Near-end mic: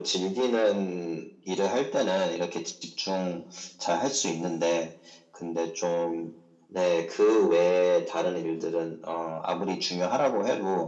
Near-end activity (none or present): none